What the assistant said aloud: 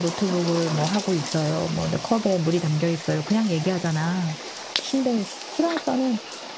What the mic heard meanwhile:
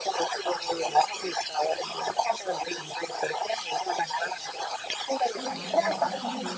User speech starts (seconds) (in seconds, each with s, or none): 5.3 s